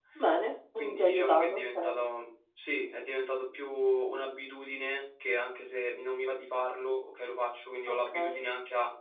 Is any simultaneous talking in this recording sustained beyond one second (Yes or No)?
Yes